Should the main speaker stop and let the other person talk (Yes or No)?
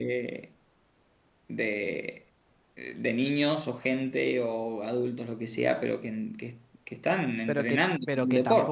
Yes